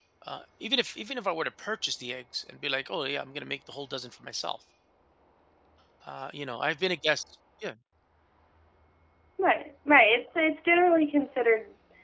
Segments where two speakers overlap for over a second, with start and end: none

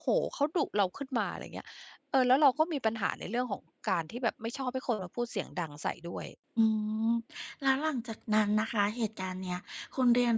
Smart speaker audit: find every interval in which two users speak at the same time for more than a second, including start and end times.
none

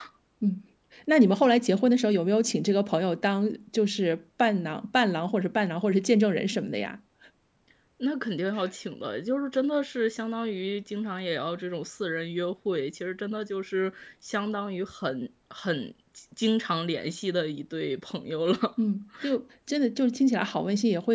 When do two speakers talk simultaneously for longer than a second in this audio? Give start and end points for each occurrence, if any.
none

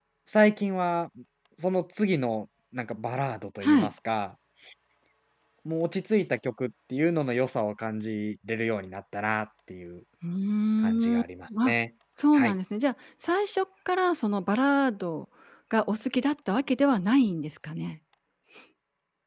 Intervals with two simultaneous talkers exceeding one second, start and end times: none

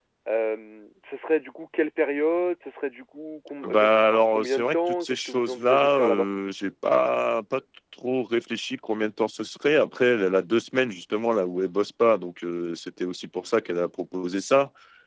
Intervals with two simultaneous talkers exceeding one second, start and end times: 3.6-6.3

